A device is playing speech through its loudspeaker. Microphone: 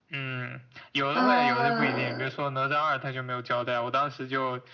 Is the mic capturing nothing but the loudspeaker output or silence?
No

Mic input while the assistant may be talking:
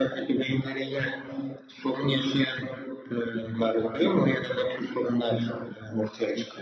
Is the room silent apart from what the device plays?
Yes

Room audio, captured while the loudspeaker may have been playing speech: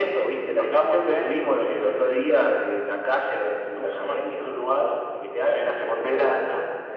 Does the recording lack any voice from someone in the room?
Yes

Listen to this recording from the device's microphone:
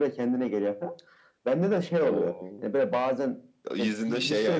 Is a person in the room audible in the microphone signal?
No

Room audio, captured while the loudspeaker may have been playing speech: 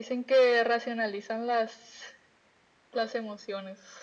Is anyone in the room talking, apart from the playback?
No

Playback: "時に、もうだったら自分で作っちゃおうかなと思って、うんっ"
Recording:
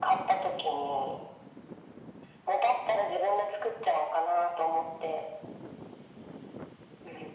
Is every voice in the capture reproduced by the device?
Yes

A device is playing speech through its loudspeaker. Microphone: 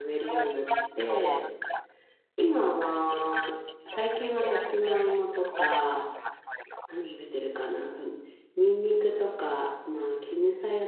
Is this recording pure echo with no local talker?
No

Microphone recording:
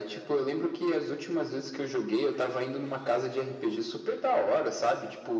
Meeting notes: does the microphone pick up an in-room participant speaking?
No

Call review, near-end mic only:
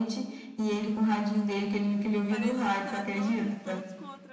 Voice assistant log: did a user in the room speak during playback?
Yes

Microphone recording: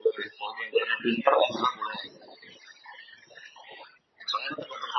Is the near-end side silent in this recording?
Yes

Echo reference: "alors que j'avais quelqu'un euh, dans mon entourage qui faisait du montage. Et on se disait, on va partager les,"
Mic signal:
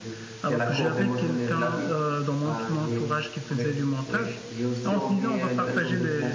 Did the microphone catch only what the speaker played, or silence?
No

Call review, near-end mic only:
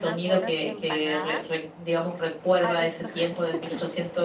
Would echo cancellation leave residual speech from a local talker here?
Yes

